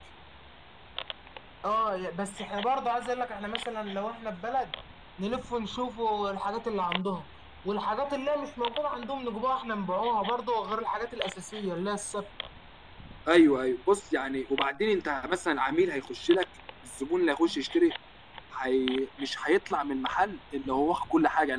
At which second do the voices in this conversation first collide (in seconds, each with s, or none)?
none